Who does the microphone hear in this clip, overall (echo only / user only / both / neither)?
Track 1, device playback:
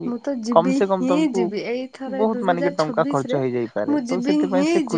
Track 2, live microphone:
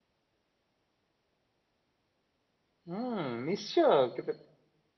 user only